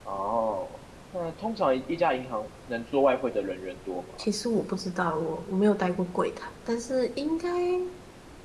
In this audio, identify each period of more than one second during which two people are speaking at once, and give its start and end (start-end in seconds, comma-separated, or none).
none